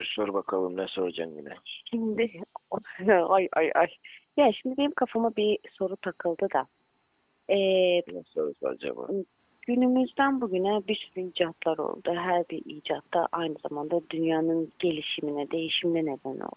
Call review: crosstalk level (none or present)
none